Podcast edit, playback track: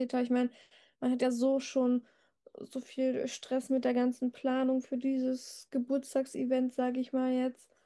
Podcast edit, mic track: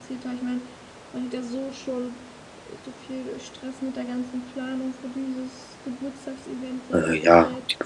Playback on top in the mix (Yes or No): No